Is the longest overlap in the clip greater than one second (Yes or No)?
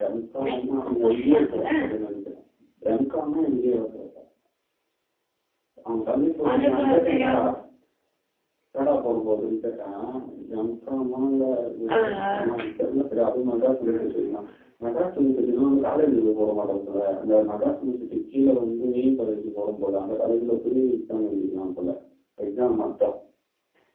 Yes